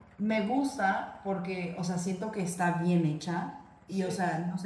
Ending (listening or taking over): listening